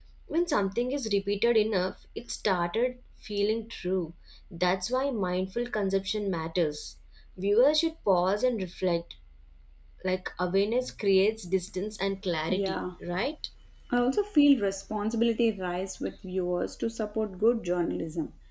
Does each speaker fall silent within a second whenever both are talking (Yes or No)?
Yes